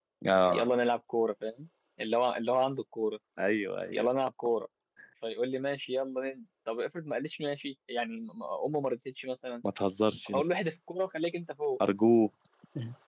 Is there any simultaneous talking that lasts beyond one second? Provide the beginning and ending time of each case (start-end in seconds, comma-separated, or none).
none